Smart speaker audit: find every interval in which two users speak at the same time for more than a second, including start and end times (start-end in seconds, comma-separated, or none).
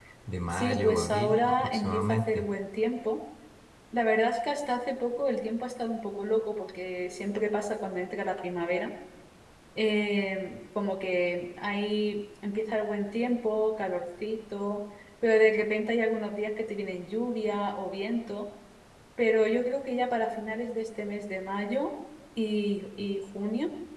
0.5-2.5